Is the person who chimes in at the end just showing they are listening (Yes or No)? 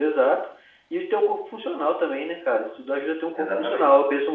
Yes